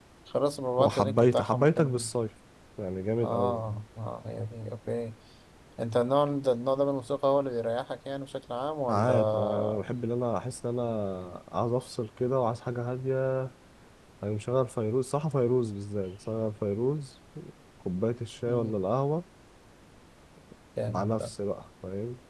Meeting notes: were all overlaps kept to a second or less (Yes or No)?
No